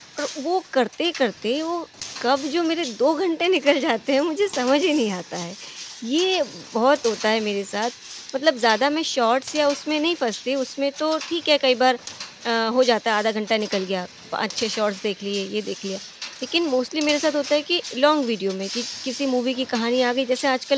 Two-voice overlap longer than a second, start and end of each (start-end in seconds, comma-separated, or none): none